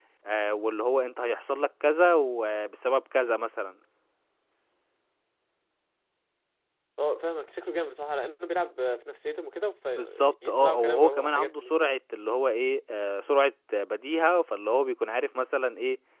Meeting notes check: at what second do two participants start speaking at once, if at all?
10 s

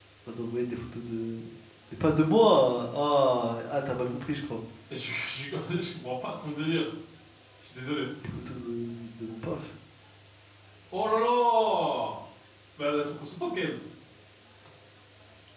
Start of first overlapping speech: none

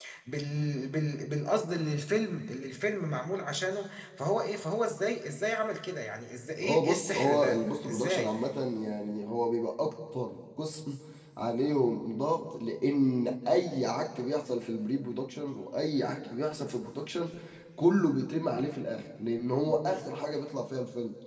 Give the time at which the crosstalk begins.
7 s

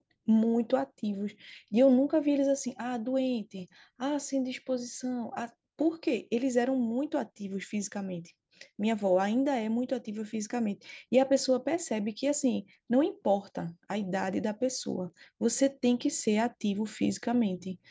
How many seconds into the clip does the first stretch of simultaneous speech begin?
none

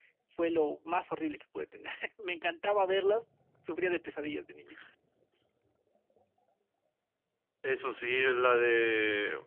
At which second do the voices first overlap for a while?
none

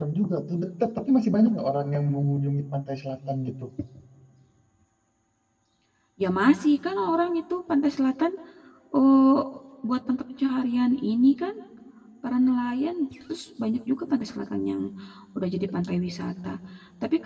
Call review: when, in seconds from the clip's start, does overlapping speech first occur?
none

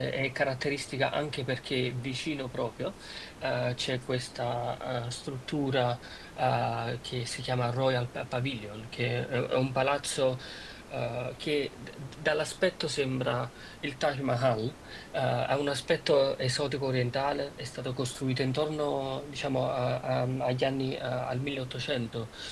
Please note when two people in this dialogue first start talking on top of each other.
none

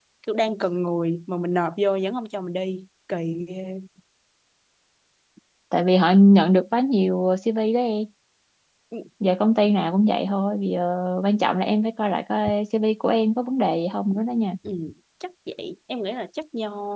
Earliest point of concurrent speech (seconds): none

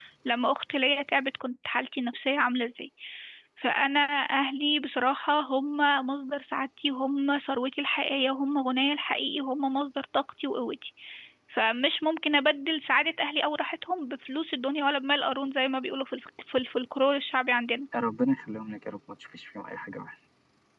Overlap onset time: none

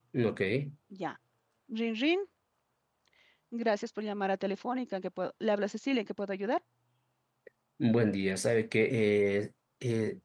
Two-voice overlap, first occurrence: none

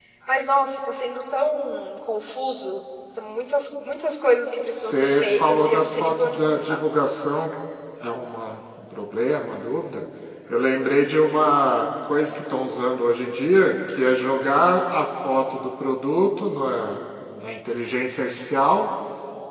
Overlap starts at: 5 s

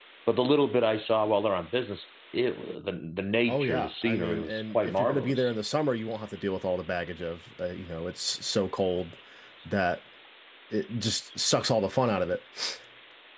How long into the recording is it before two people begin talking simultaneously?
3 s

